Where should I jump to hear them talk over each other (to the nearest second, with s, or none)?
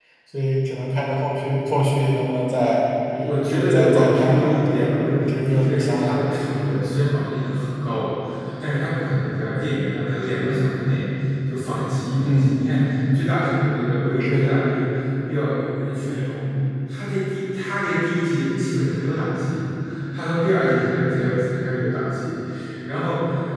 4 s